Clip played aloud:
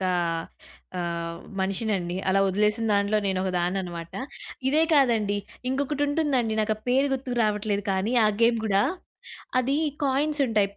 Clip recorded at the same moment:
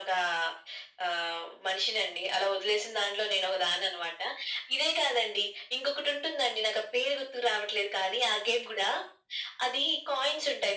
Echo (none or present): present